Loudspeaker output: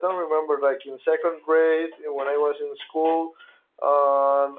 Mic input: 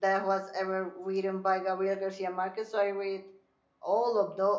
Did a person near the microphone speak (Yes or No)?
Yes